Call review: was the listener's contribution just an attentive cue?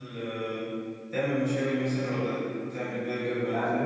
No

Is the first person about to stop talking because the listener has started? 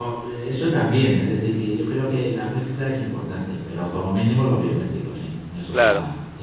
Yes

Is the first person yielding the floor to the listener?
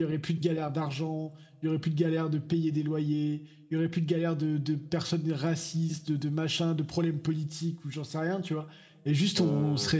No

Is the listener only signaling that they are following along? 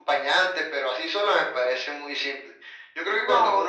Yes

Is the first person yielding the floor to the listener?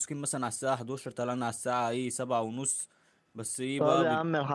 Yes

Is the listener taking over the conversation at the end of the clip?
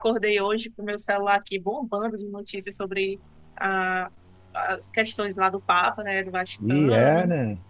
Yes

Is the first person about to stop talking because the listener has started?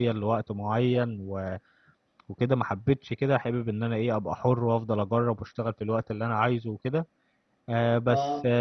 No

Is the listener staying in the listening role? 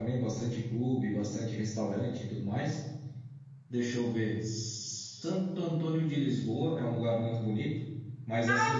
No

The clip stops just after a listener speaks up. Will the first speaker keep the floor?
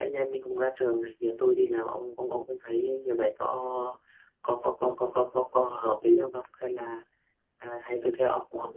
Yes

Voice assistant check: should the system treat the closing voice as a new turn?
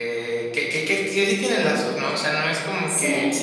No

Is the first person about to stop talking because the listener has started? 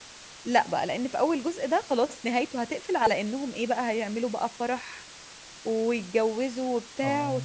No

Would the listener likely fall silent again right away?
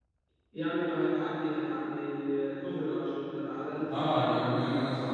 No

